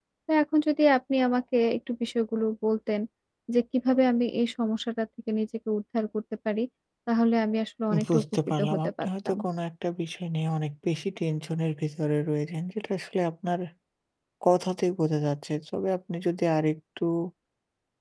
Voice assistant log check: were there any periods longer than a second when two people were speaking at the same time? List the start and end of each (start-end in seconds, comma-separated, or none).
8.1-9.4